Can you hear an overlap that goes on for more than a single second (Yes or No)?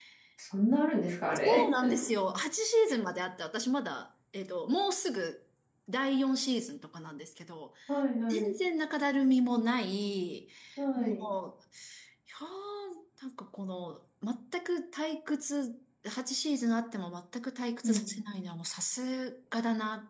No